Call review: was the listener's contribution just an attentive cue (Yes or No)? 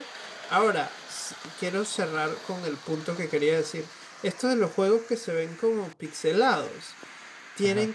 Yes